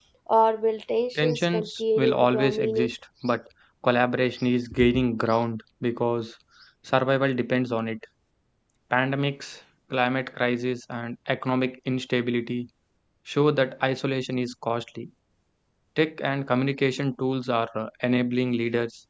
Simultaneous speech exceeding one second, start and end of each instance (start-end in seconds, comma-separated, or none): 1.1-2.9